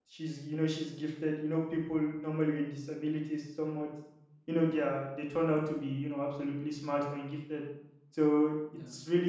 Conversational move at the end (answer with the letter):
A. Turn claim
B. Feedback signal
B